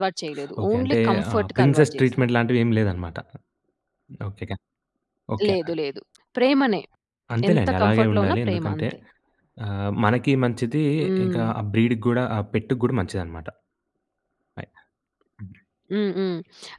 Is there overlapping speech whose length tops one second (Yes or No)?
Yes